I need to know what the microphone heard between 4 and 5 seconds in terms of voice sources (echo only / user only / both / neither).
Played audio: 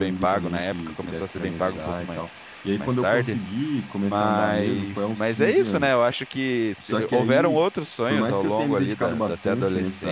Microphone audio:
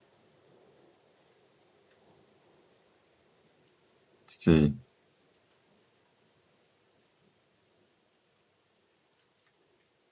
user only